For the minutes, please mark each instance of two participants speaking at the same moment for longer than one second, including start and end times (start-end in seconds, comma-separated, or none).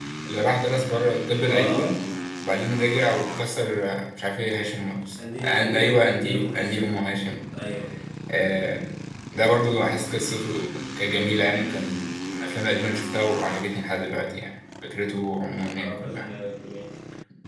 5.4-6.8